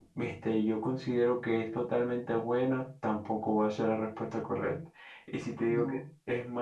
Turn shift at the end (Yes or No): No